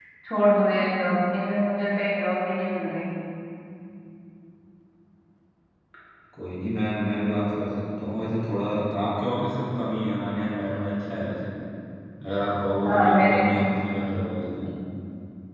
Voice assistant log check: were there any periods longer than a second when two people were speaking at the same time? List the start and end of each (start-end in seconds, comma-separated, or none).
none